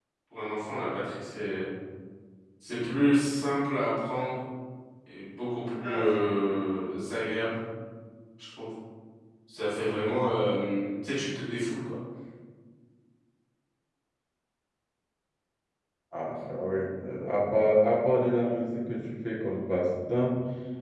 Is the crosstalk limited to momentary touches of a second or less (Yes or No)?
Yes